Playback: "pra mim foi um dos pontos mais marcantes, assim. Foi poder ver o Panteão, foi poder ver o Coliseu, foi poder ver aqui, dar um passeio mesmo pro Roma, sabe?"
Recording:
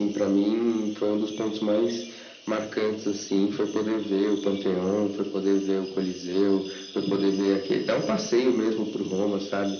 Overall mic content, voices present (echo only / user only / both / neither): echo only